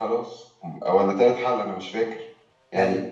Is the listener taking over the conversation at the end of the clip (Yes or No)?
No